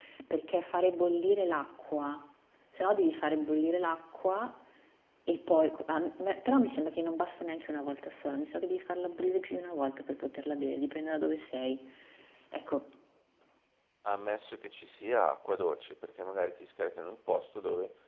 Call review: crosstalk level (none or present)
none